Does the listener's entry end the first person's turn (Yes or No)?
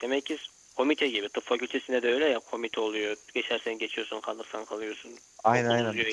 Yes